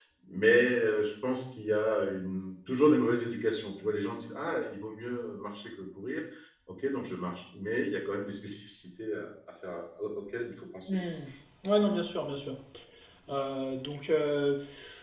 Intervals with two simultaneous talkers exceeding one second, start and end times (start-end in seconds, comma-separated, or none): none